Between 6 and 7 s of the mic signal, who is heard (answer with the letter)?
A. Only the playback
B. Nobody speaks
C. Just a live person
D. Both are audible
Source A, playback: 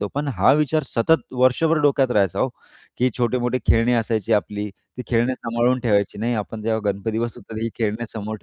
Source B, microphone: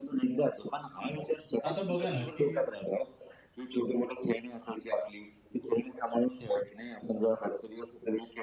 A